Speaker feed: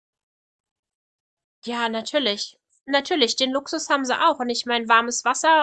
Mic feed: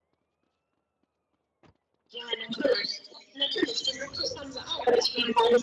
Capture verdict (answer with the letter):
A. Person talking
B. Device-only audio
B